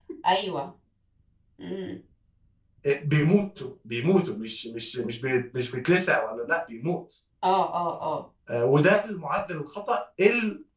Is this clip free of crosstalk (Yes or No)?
Yes